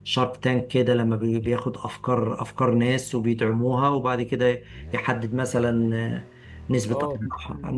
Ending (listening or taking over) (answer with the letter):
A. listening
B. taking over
B